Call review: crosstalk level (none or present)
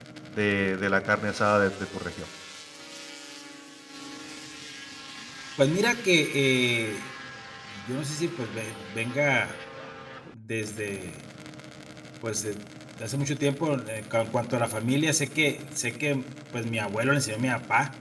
none